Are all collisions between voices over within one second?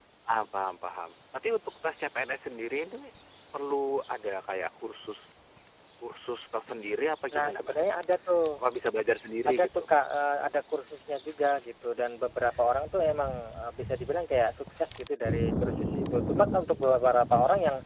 Yes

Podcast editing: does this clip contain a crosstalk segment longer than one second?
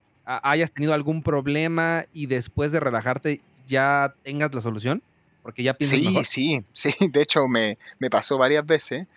No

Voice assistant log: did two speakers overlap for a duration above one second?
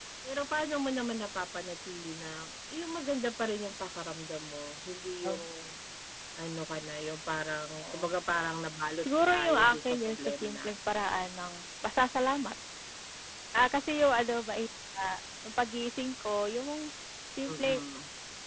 Yes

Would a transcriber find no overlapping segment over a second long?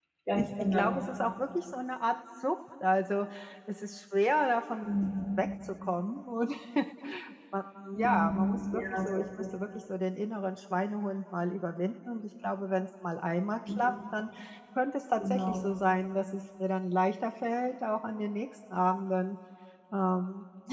No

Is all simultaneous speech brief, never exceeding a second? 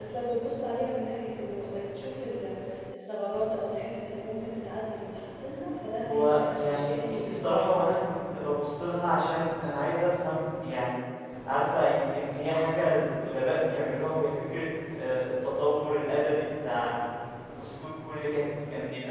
No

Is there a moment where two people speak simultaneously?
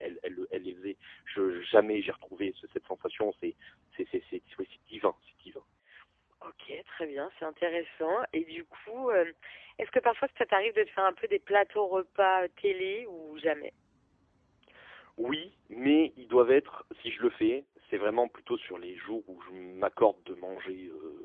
No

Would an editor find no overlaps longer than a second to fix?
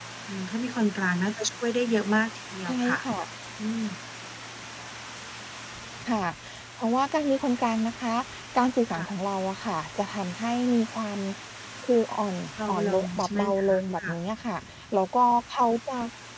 No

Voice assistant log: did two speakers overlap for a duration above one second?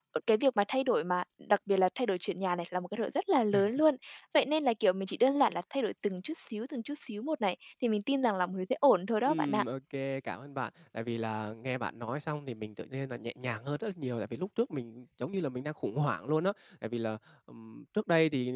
No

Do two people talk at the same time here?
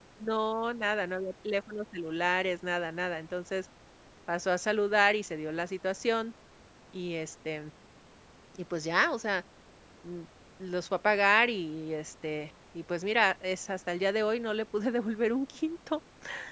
No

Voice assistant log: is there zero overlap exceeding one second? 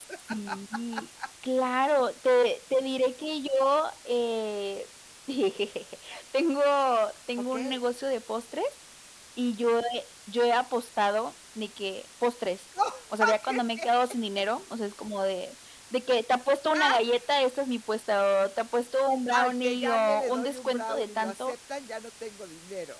No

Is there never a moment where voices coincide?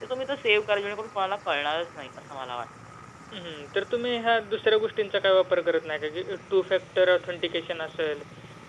Yes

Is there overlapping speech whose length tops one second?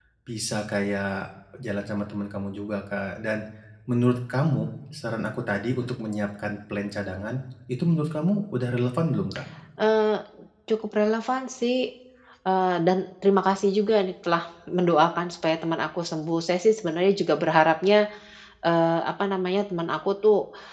No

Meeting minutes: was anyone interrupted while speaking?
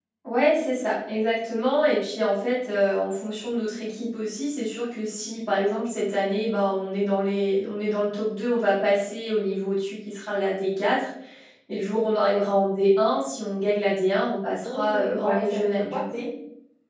Yes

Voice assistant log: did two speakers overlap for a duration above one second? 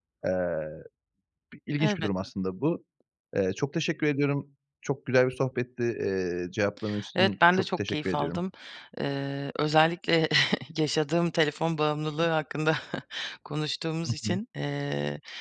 Yes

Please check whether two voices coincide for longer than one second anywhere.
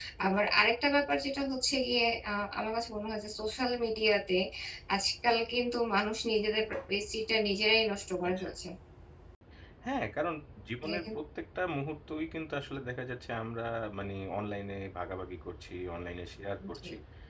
No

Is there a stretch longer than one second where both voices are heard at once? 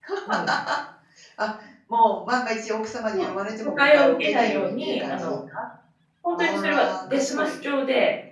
Yes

